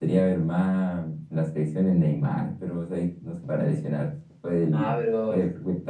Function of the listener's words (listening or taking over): listening